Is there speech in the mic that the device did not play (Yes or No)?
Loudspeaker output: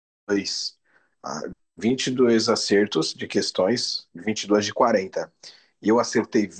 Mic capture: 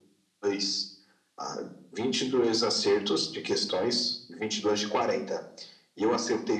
No